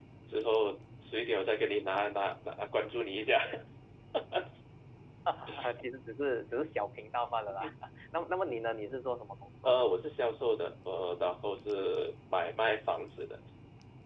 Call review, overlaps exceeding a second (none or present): none